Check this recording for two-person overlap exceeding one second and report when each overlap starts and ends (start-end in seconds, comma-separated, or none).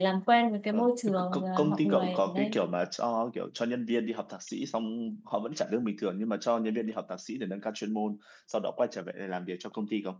0.7-2.6